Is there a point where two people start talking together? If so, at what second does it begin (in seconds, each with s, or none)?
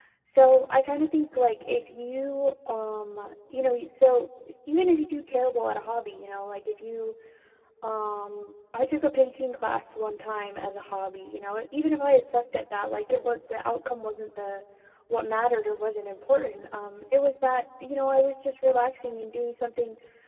none